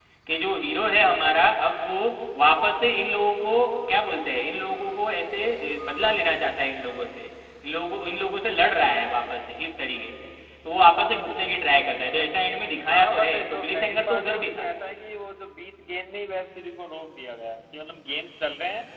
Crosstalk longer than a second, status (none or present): present